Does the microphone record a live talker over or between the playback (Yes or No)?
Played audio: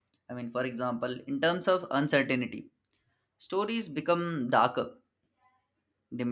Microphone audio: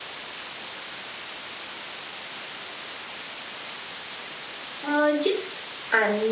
Yes